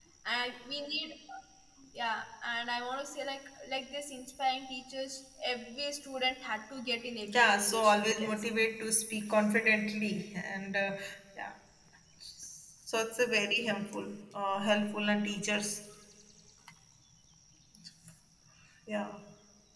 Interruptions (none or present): present